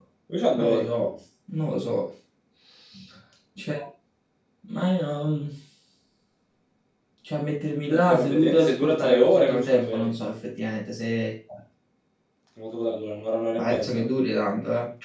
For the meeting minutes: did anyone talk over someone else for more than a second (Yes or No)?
Yes